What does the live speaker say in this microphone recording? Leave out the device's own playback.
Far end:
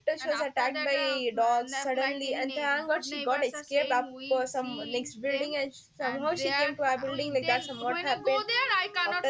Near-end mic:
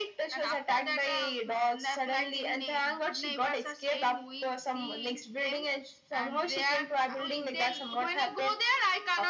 none

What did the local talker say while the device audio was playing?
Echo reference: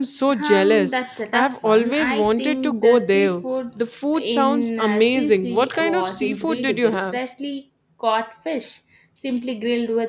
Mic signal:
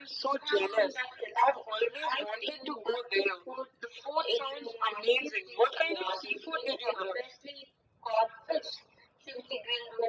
none

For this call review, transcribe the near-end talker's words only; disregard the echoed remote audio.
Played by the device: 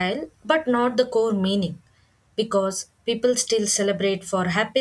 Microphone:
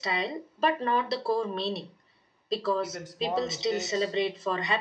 even small mistakes

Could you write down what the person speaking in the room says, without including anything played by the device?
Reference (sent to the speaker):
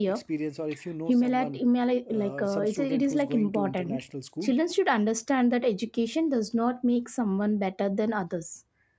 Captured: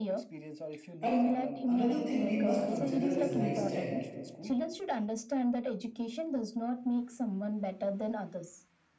And another thing we must consider is lifestyle.

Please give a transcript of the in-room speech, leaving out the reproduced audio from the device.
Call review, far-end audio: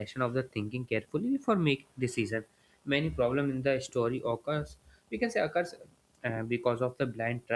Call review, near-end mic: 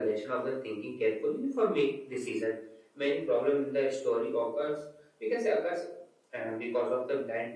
none

